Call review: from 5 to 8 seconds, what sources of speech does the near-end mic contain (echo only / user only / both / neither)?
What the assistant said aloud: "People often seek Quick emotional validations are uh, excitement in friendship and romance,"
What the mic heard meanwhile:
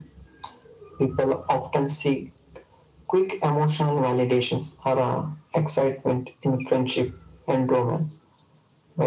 echo only